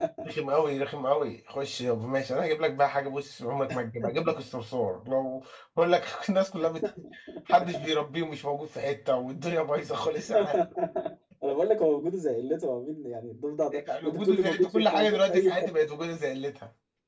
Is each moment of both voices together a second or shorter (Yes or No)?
No